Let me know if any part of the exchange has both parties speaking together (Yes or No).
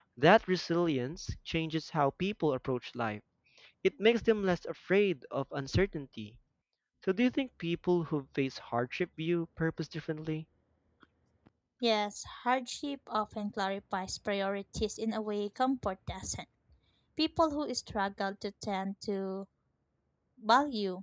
No